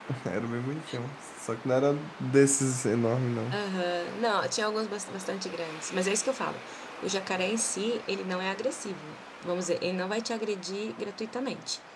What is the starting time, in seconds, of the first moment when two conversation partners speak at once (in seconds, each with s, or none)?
none